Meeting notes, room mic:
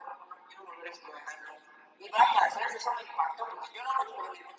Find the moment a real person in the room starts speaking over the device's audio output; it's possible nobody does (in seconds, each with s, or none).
none